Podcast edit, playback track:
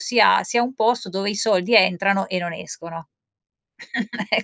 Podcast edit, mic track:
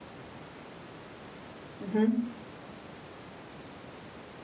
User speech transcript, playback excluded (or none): Mh-mh.